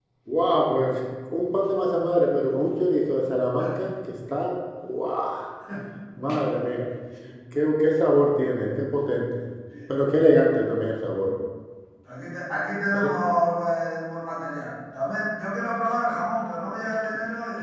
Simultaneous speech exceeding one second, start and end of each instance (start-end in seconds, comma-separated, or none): none